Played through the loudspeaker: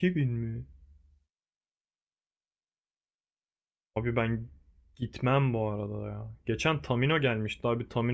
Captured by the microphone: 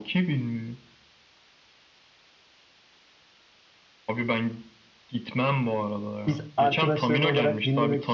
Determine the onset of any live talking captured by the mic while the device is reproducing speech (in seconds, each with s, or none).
6.3 s